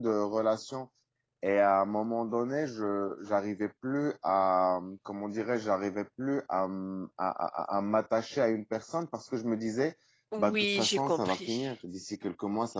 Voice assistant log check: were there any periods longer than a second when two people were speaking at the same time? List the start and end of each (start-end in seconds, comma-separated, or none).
10.4-11.7